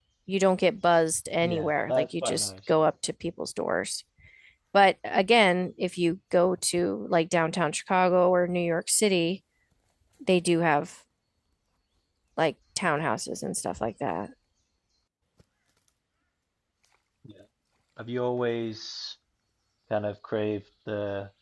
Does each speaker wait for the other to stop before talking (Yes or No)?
No